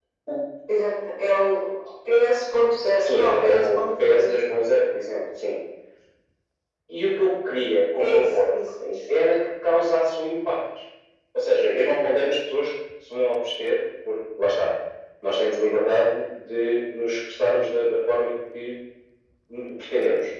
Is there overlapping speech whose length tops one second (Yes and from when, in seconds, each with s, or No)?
Yes, from 3.0 s